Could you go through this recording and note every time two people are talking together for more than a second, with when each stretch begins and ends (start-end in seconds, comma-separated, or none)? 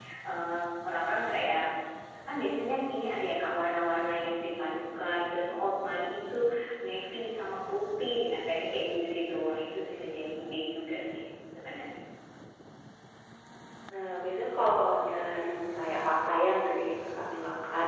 none